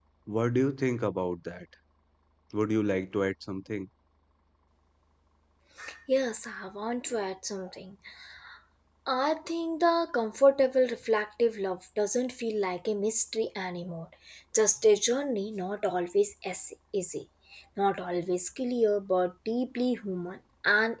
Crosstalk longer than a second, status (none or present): none